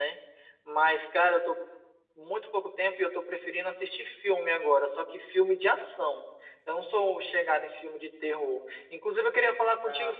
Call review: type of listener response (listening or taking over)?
listening